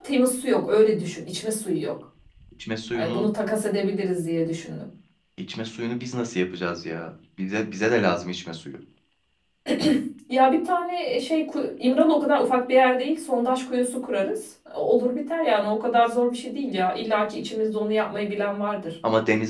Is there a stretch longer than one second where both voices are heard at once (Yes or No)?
No